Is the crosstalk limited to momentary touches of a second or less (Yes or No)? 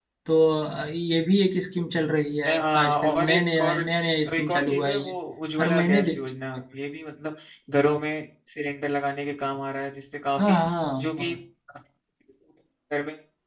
No